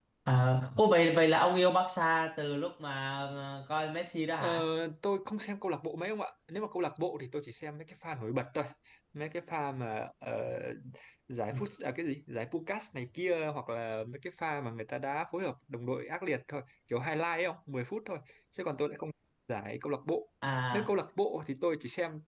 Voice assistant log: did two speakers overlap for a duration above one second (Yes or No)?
No